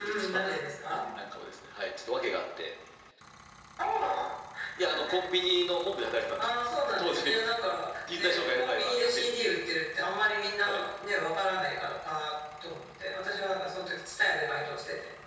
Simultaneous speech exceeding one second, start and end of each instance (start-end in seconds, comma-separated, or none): 8.1-9.3